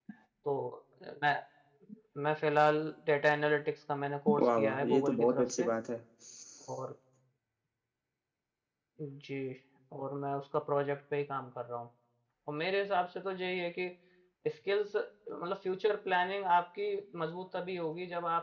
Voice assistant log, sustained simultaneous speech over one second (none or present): present